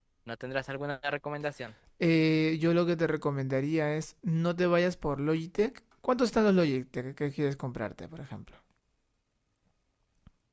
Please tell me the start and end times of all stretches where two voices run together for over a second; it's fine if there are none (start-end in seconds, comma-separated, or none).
none